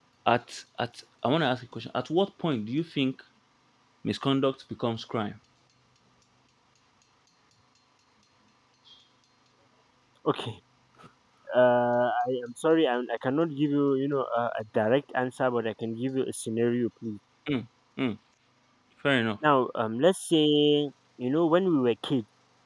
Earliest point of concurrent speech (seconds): none

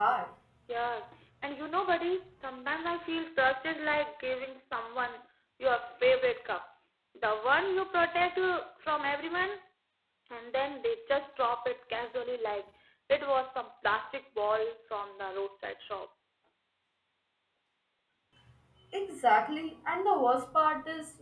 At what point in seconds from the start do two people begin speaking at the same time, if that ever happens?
none

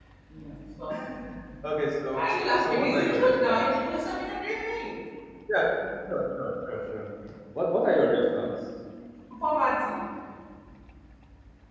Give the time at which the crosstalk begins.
2 s

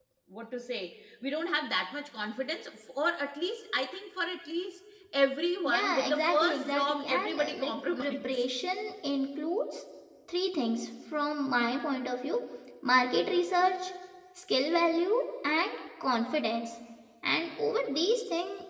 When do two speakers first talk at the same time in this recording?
6 s

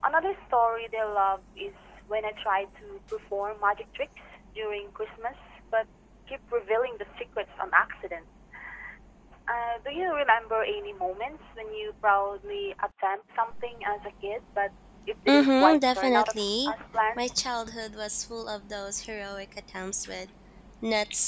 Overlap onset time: 15 s

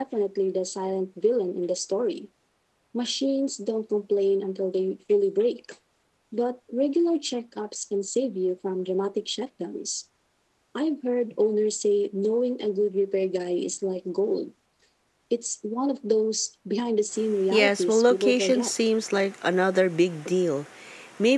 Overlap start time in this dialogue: 18 s

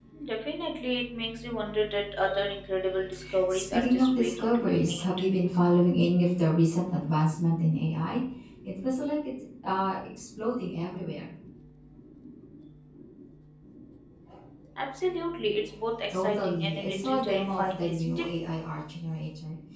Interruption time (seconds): 4 s

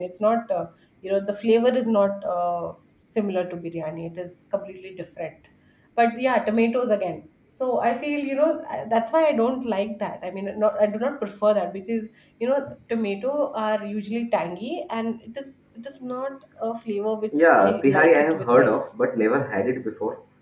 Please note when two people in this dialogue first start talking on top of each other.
17 s

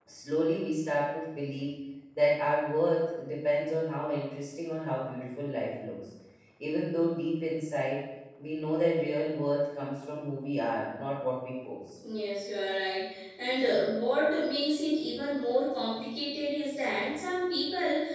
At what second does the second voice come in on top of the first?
none

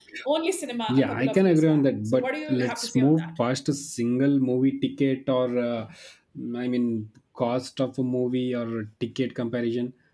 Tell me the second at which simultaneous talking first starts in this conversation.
1 s

